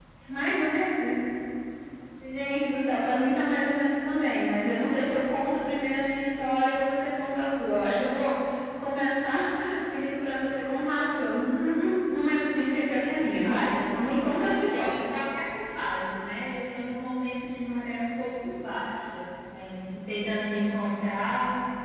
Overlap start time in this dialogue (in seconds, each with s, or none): 13.4 s